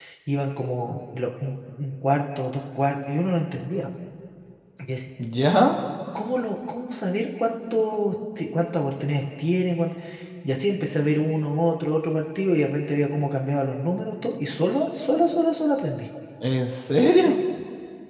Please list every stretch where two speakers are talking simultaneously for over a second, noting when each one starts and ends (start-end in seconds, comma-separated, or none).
none